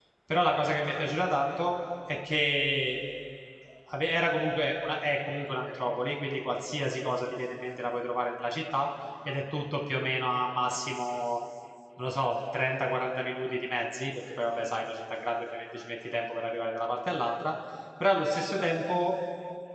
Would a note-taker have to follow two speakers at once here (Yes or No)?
No